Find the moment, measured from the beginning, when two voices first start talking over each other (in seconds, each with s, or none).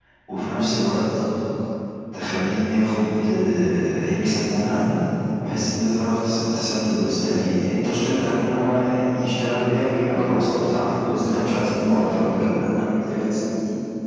10.1 s